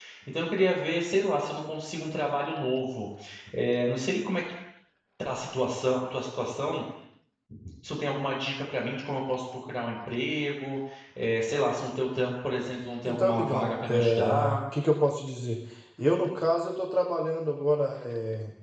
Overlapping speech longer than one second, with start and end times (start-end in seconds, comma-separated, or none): 13.1-14.6